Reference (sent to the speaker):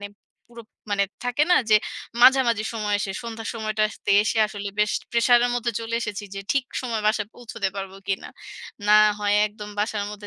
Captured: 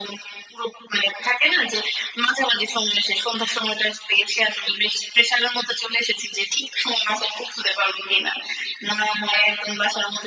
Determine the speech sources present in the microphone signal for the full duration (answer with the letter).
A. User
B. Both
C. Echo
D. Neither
C